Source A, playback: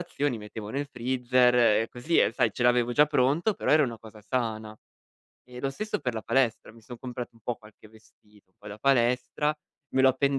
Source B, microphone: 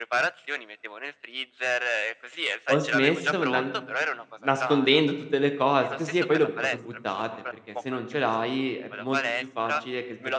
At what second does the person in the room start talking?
2.6 s

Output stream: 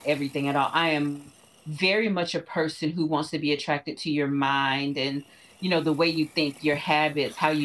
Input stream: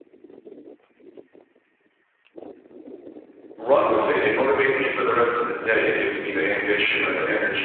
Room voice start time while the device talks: 3.6 s

